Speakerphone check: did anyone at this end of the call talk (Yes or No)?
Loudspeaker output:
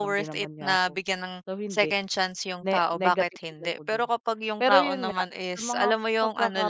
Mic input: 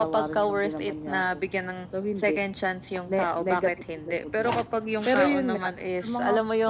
No